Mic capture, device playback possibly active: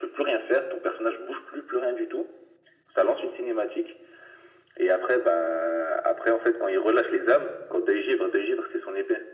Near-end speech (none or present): none